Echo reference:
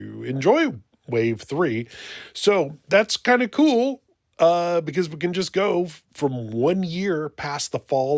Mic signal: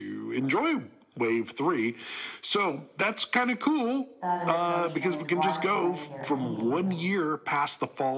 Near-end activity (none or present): present